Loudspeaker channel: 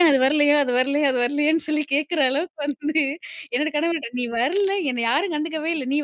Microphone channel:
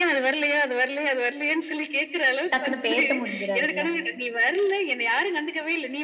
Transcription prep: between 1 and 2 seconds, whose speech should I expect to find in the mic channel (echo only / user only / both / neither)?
echo only